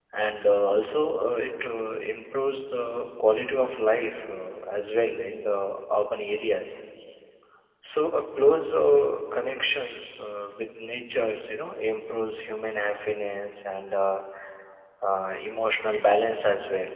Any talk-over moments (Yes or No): No